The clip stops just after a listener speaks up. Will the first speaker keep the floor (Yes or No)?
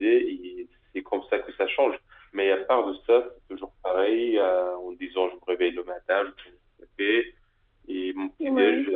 Yes